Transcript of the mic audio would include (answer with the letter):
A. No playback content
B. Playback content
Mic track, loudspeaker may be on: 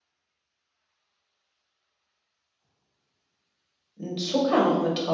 A